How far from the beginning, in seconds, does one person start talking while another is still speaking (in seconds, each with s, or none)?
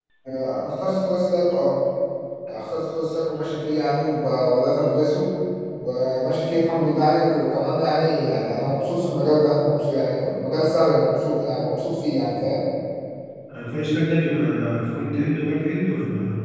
none